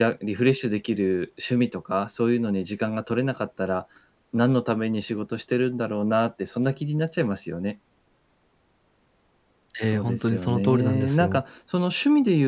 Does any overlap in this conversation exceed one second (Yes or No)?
Yes